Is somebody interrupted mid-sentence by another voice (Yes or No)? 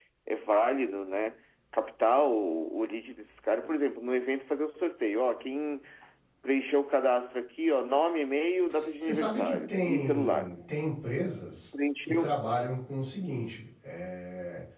Yes